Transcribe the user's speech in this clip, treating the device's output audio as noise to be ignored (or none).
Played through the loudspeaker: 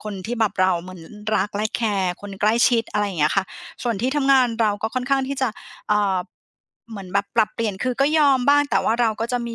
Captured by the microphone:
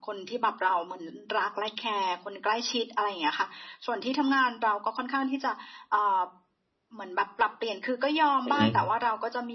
อือฮึ